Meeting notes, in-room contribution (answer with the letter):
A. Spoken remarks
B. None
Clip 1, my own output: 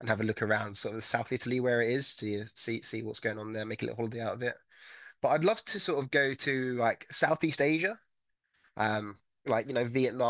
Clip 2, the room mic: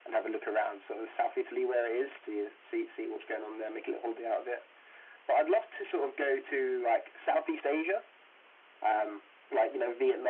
B